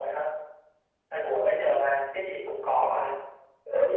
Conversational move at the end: listening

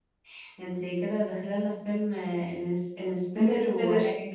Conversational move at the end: listening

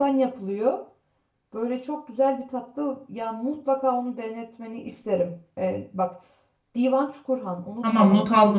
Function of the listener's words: taking over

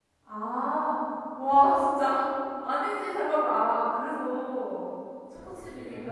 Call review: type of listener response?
listening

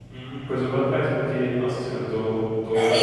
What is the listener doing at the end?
taking over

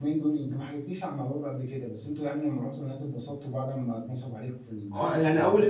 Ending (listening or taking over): taking over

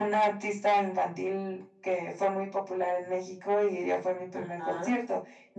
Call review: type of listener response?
listening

